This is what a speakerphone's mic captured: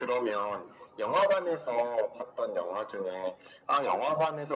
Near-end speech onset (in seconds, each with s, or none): none